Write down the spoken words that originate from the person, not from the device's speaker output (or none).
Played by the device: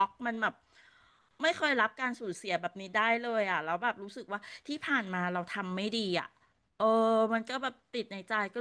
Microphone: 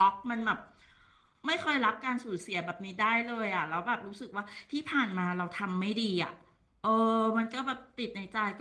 none